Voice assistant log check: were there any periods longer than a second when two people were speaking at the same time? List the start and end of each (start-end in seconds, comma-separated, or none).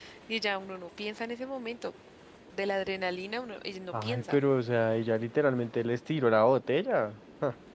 none